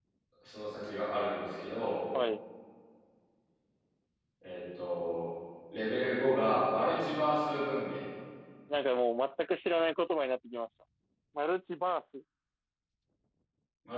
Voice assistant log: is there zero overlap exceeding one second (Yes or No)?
Yes